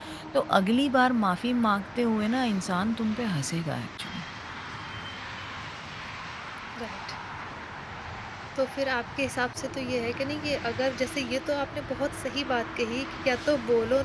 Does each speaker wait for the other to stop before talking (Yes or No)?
Yes